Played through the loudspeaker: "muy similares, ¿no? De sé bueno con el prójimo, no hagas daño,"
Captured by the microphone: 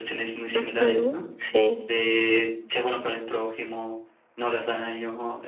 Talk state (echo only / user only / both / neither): both